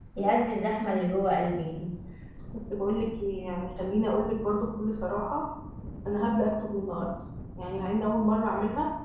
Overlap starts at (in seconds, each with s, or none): none